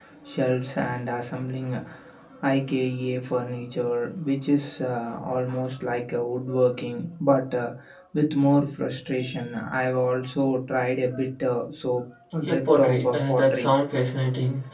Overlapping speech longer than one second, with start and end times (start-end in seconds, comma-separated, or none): 12.4-13.8